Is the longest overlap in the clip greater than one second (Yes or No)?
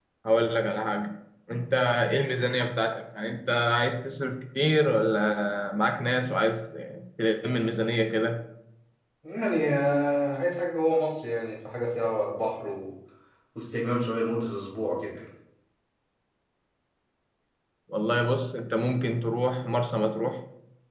No